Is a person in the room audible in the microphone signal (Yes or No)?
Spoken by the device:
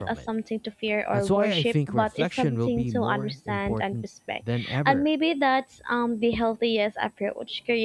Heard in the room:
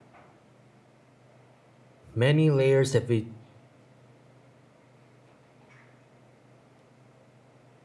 Yes